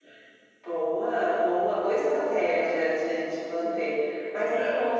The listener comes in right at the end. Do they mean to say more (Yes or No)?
No